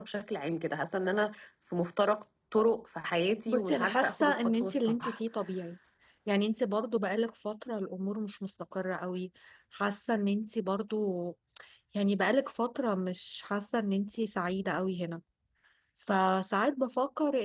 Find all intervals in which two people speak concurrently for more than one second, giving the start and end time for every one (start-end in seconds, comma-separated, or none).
3.5-5.2